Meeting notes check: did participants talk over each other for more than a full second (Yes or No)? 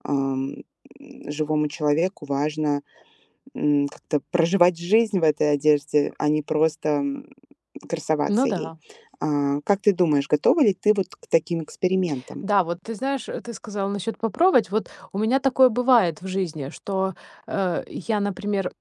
No